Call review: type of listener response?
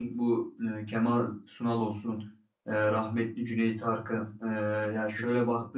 listening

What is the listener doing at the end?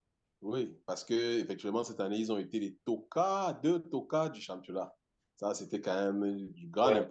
taking over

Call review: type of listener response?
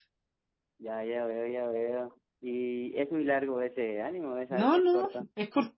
taking over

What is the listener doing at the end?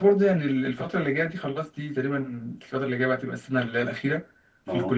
listening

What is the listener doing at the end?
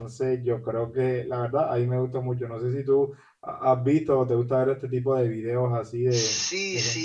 taking over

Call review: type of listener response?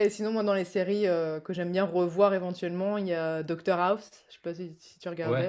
taking over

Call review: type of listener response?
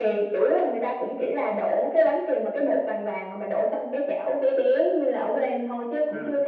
listening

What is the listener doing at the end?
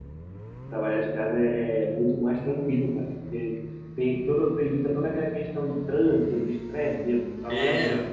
taking over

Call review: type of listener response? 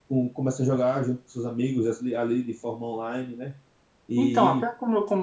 taking over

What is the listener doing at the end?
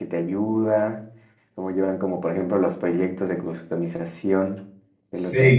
taking over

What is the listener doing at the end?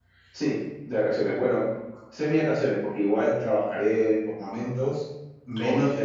listening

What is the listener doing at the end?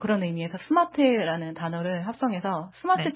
listening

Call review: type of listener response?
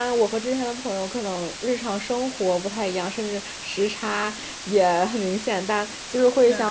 listening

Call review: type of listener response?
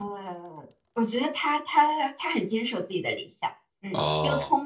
listening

